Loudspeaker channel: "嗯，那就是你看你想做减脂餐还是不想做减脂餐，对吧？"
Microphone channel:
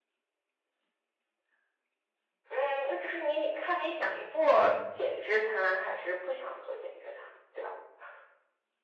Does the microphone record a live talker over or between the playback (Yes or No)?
No